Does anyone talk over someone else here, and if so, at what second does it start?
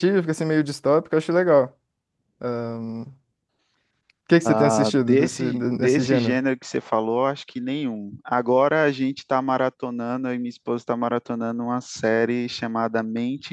4.5 s

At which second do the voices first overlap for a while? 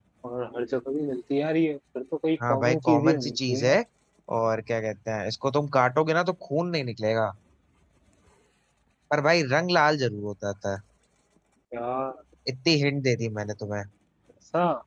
2.4 s

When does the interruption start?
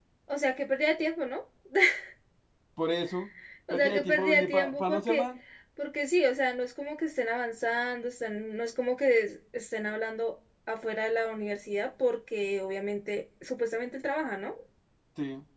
3.7 s

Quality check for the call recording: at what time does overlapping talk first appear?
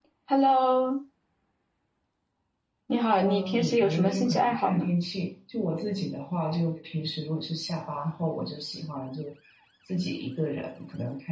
3.2 s

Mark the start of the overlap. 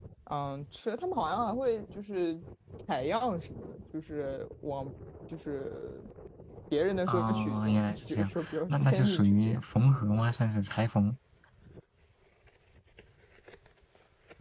7.1 s

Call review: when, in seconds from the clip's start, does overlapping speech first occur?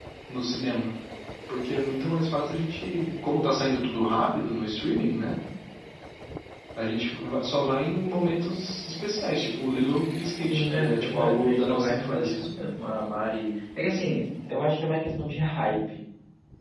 10.5 s

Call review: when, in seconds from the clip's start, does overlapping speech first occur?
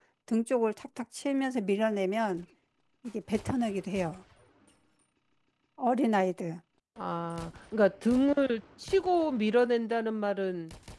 none

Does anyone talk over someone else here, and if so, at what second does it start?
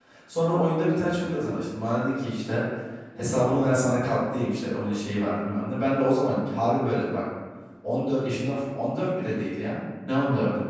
none

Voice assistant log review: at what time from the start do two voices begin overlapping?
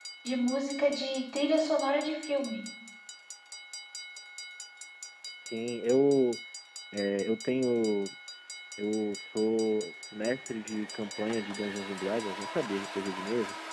none

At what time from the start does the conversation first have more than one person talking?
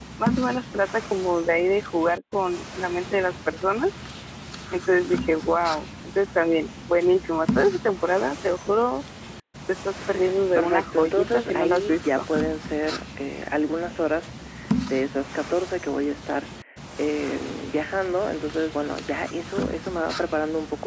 10.6 s

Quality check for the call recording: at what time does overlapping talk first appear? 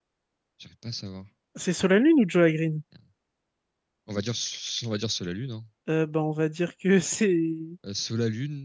none

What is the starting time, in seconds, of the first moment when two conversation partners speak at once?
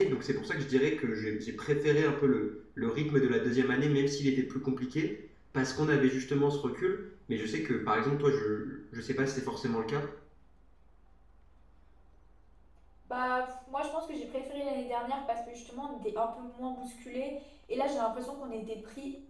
none

